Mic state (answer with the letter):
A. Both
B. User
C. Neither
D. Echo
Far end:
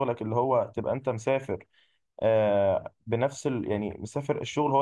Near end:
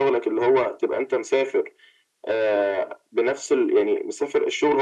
D